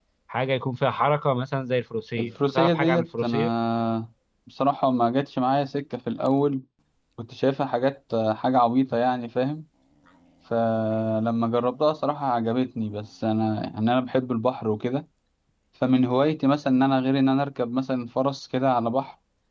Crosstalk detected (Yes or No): Yes